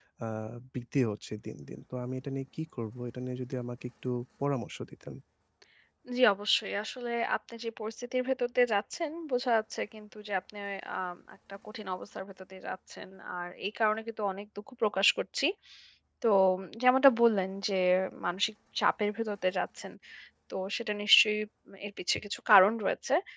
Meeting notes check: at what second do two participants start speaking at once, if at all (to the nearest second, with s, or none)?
none